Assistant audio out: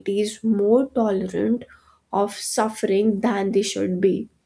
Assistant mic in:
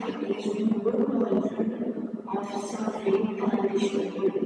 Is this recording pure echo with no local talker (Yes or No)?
Yes